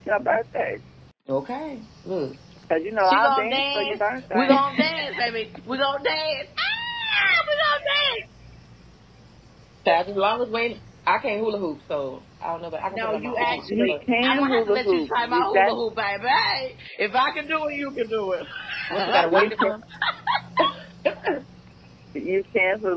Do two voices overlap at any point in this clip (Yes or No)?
Yes